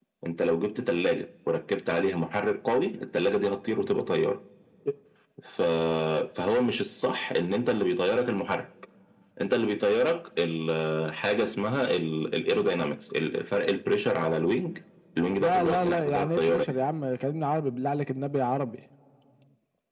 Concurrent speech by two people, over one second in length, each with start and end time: 15.4-16.7

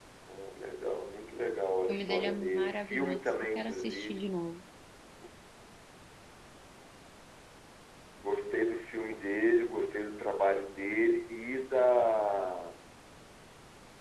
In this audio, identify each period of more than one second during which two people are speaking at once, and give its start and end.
1.9-4.3

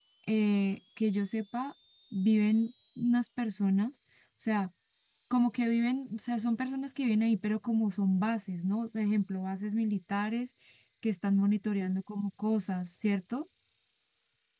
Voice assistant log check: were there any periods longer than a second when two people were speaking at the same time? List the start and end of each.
none

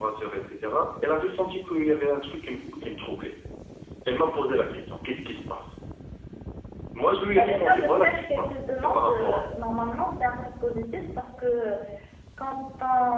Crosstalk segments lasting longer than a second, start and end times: 7.3-9.4

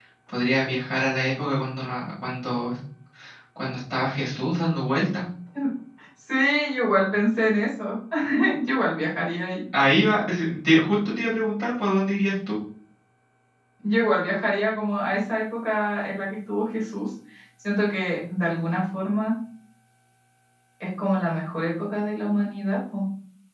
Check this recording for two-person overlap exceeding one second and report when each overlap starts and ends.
none

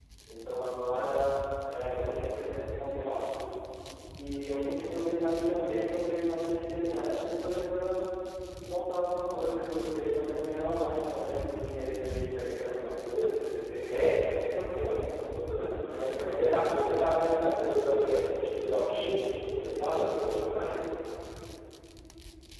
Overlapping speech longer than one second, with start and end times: none

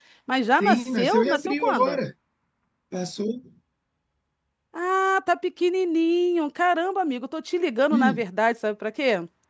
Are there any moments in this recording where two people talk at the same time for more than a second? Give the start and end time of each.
0.6-2.0

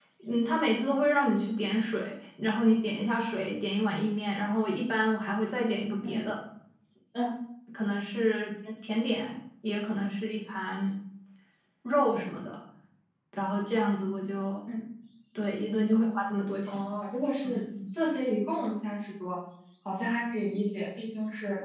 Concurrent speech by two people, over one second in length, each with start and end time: none

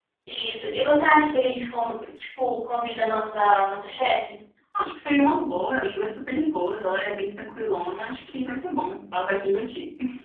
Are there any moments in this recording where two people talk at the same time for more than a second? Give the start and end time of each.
none

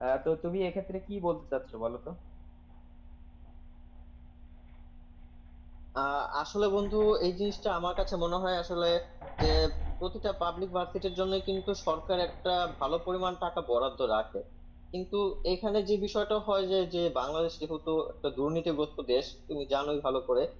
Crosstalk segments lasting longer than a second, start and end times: none

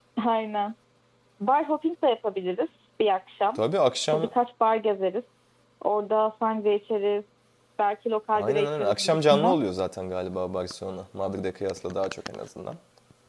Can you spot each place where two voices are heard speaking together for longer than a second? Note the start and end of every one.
8.3-9.6

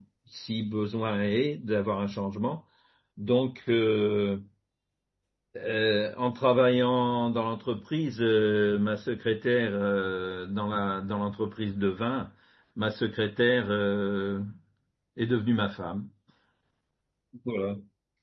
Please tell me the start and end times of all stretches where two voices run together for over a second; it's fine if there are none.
none

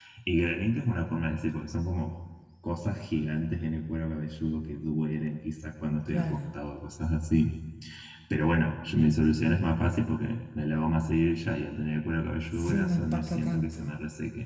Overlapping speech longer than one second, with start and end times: 12.6-13.8

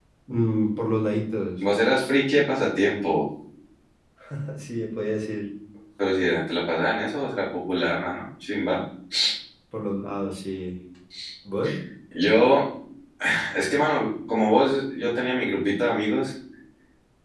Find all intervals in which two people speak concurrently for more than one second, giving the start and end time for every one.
none

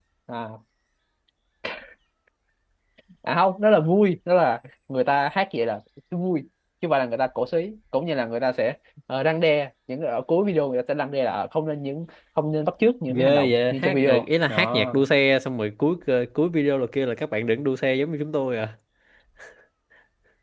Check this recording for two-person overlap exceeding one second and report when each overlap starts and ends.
13.1-14.9

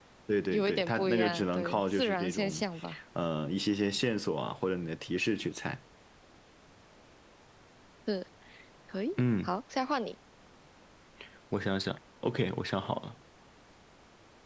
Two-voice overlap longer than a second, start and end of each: 0.5-2.6

